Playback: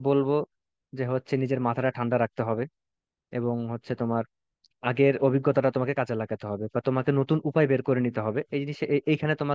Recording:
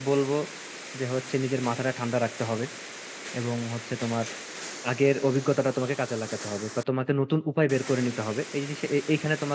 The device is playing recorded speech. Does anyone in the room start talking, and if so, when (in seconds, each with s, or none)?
none